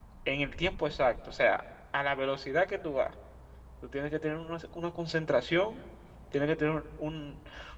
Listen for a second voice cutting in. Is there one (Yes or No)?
No